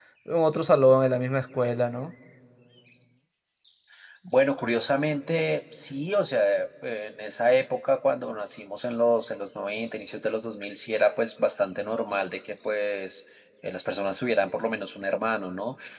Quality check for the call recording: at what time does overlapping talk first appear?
none

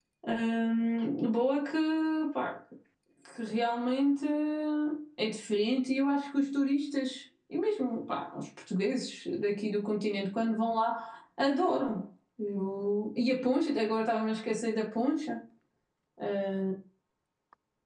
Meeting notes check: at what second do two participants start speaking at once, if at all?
none

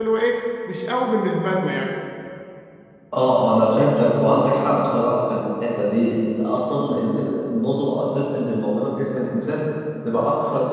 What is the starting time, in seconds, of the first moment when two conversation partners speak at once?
none

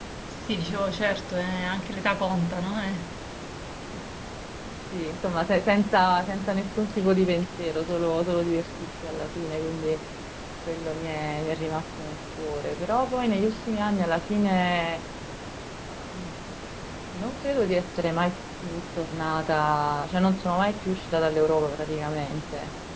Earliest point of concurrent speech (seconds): none

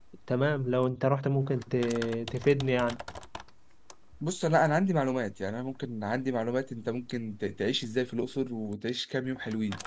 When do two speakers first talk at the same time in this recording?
none

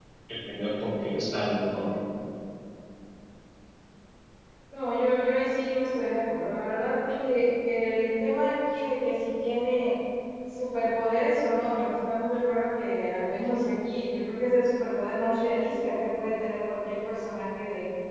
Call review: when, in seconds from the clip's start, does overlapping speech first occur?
none

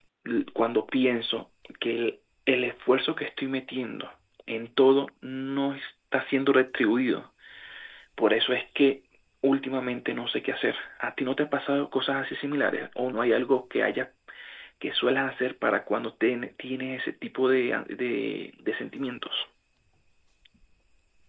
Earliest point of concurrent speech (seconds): none

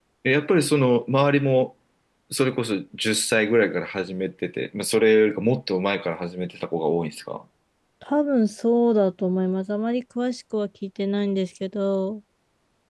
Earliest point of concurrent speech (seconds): none

